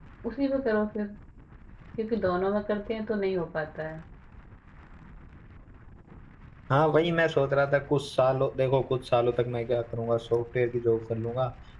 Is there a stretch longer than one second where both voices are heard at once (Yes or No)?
No